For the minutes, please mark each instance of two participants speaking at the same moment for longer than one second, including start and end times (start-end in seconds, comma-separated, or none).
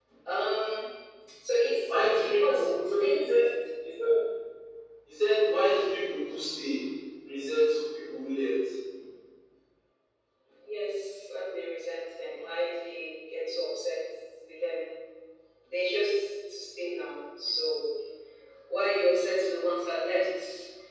1.9-3.5